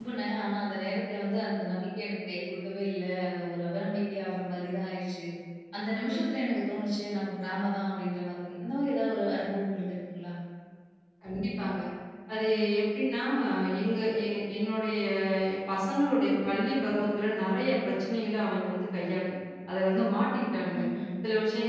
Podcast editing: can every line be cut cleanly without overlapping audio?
Yes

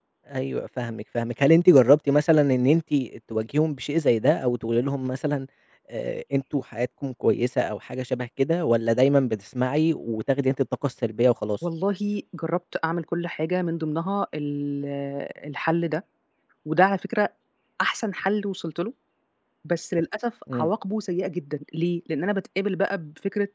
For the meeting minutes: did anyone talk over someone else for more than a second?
No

